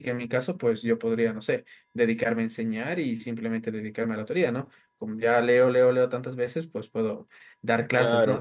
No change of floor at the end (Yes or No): Yes